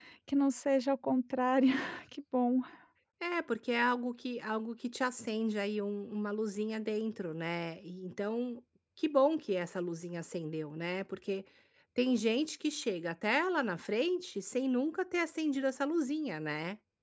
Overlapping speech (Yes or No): No